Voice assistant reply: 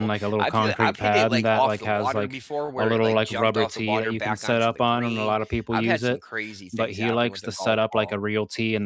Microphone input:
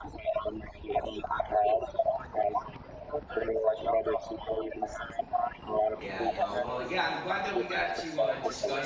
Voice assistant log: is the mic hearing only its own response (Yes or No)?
No